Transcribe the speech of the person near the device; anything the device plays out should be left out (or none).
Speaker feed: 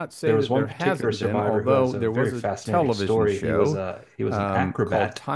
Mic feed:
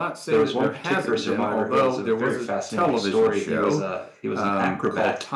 none